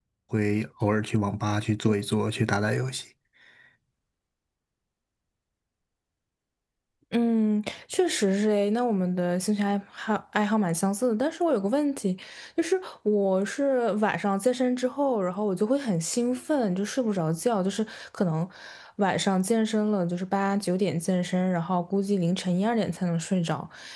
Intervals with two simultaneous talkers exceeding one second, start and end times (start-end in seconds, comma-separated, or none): none